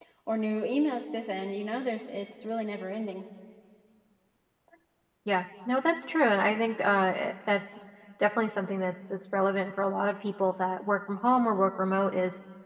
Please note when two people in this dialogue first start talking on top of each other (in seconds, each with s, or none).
none